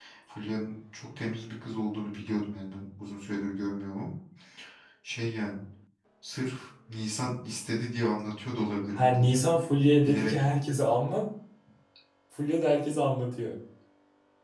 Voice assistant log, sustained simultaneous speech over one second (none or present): none